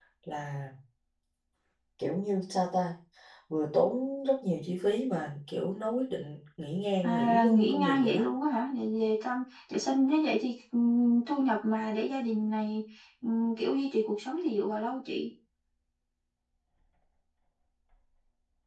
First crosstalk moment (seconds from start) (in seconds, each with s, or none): 7.0 s